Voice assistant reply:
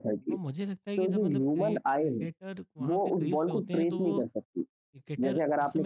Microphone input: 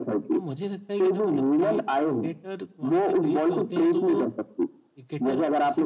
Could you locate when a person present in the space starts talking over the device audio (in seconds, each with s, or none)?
none